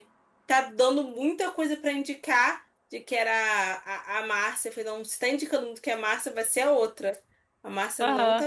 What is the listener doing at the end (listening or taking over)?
listening